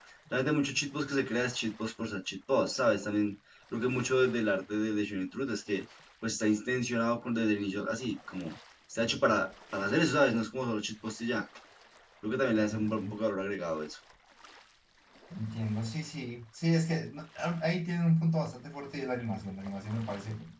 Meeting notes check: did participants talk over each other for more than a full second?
No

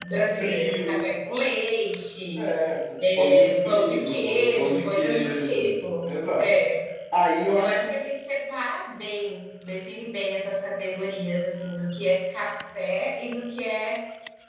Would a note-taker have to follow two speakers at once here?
Yes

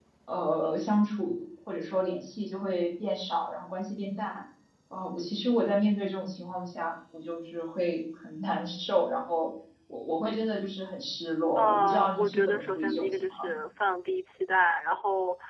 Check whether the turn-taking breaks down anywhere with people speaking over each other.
Yes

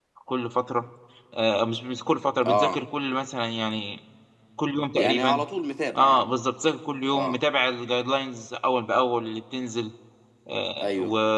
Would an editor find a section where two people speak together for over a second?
No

